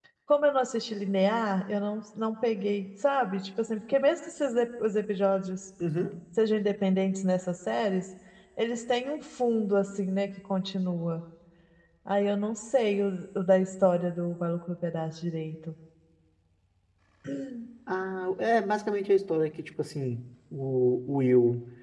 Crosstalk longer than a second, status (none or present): none